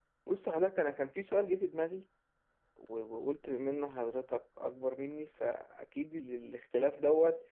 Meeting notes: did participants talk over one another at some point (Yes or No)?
No